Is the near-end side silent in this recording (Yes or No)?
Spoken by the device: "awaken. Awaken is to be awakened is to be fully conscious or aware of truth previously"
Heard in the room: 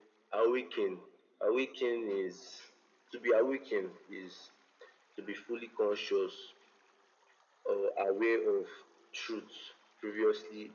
Yes